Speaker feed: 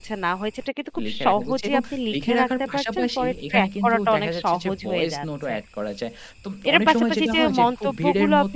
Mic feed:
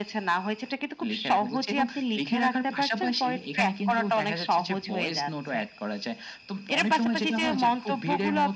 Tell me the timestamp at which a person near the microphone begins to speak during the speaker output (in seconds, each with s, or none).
none